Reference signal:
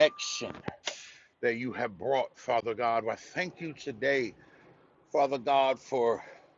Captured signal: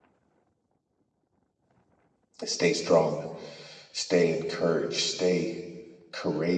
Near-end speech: present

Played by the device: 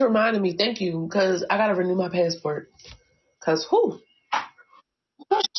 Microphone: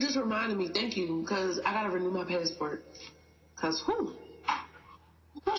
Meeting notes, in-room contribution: none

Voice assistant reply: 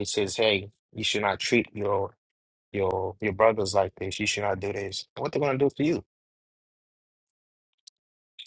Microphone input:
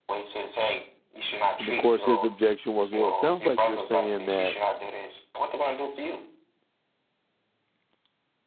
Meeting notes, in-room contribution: present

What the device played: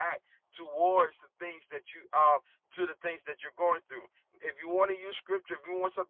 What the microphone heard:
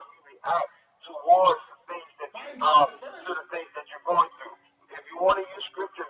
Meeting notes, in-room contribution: present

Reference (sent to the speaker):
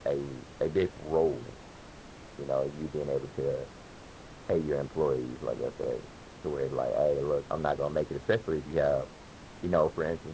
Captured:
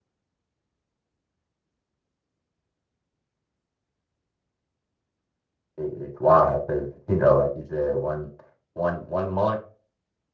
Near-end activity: present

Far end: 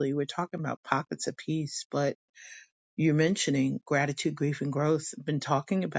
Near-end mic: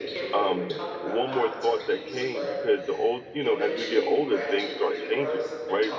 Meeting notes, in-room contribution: present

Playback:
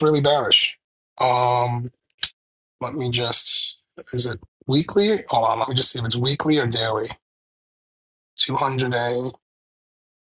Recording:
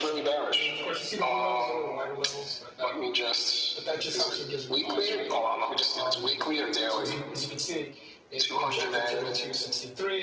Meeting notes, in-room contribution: present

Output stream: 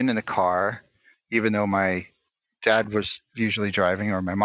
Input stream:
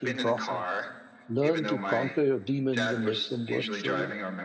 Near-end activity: present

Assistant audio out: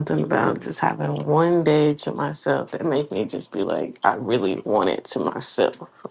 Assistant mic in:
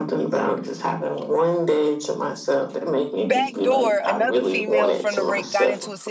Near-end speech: present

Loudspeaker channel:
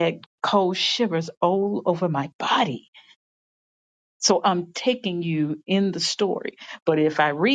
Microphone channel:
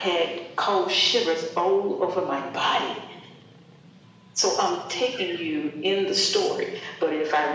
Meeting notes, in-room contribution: none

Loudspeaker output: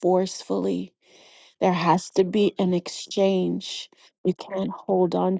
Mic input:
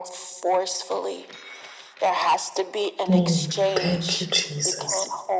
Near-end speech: present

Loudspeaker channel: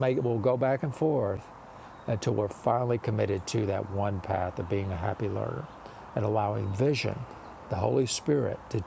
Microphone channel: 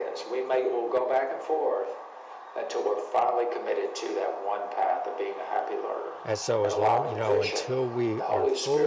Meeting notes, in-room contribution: present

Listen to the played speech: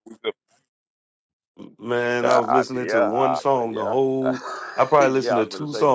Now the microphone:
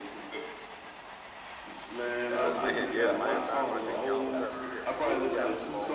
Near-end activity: present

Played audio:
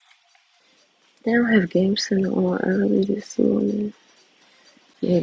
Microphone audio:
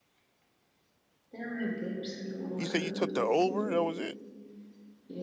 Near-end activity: present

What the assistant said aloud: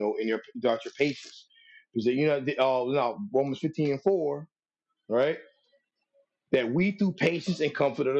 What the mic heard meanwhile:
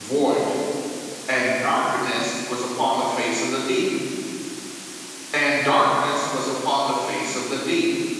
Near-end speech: present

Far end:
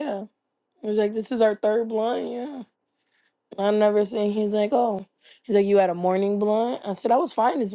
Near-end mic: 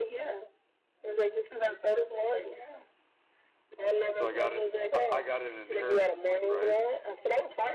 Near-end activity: present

